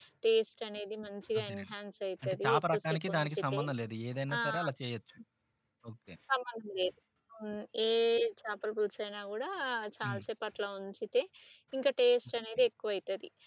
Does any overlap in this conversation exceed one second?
Yes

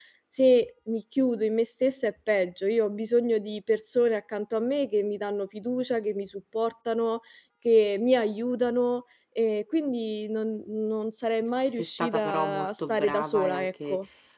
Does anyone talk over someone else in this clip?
Yes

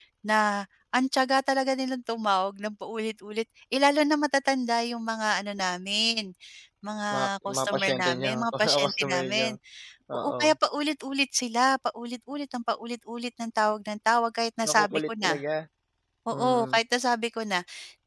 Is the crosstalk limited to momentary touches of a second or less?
No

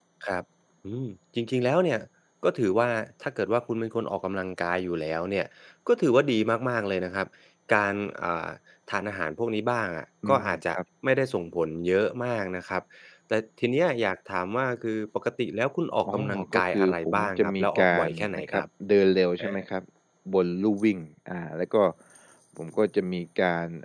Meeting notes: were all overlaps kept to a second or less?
No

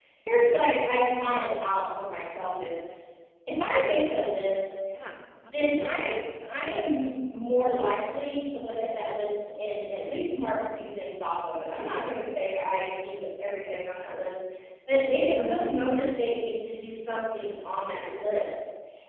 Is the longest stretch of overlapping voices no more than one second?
Yes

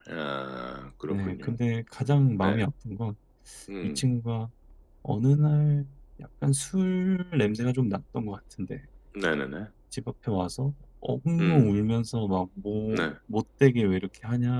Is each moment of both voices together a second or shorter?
Yes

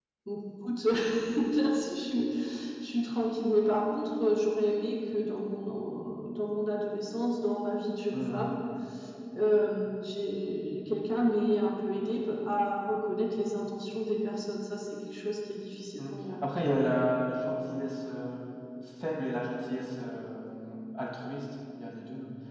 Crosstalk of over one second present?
No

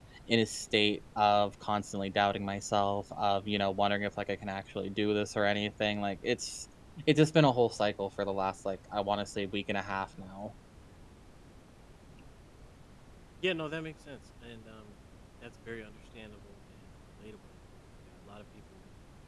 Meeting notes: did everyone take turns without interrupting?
Yes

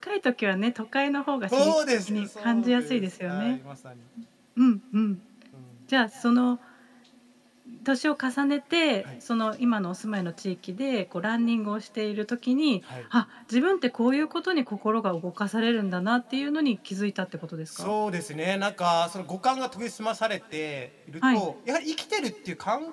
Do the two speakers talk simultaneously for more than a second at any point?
Yes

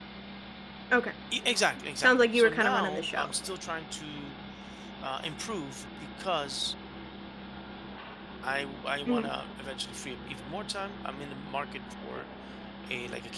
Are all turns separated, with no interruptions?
No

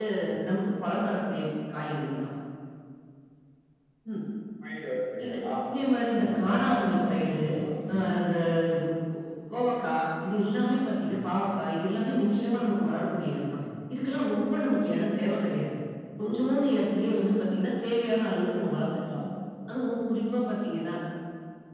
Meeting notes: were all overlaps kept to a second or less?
No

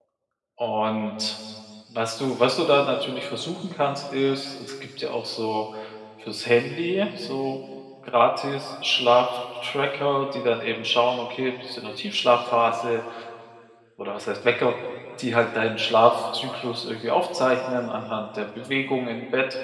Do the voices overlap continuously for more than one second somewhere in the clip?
No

